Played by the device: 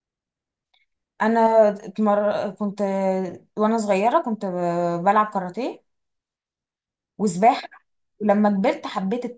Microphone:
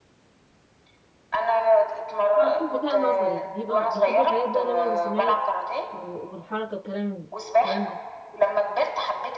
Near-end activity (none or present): present